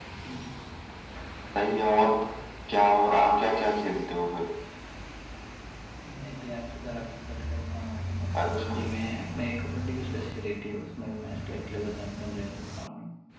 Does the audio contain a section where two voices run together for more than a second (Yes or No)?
No